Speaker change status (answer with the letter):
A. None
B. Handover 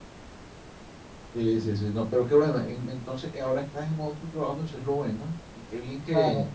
B